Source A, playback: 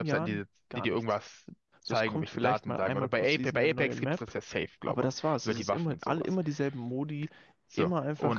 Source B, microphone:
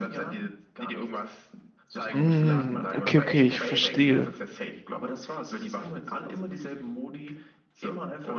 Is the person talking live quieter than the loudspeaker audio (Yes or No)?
No